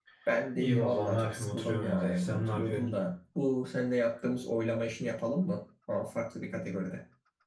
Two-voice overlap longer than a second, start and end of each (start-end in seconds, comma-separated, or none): 0.6-2.9